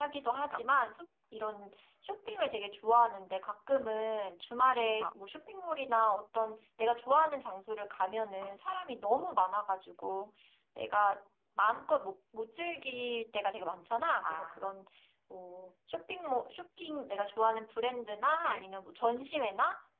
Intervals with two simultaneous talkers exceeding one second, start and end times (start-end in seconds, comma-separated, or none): none